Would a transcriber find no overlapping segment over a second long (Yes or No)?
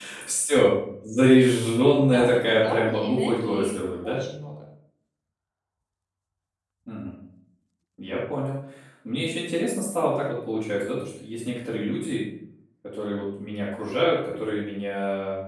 No